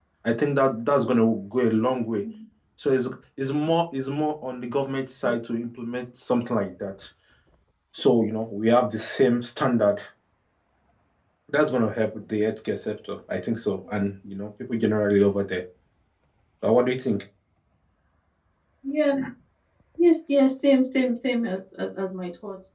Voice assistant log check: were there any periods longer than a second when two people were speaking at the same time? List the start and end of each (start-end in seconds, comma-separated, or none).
none